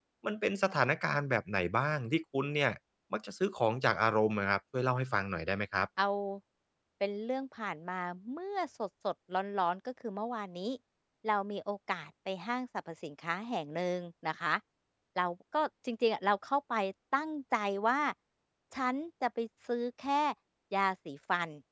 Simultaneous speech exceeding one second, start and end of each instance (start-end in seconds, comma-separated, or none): none